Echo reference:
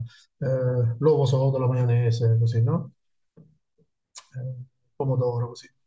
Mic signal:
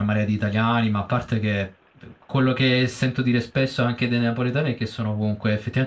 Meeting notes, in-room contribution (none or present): present